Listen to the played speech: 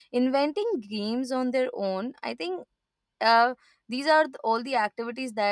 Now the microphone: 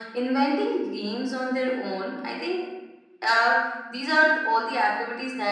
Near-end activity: none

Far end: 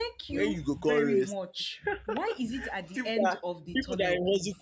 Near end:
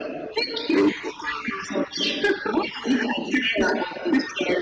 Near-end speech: none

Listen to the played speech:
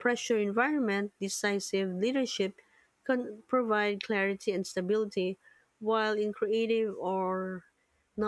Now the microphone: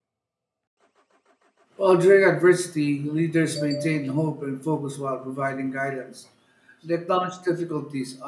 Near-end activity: present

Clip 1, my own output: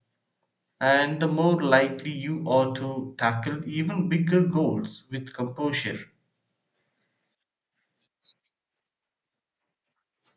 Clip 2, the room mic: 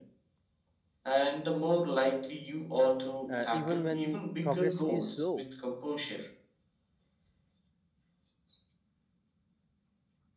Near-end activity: present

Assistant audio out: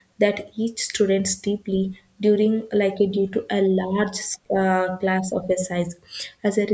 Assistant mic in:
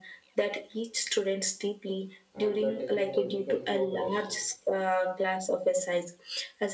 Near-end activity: present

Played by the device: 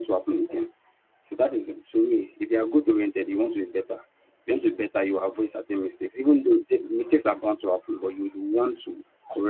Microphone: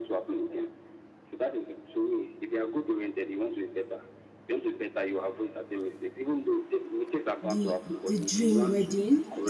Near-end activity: present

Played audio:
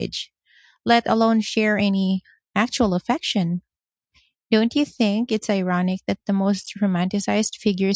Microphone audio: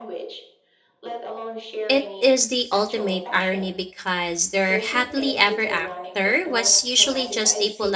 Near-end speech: present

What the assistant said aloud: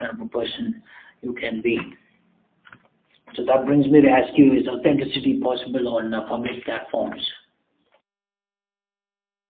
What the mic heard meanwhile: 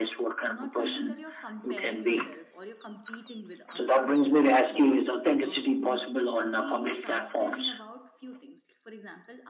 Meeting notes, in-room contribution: present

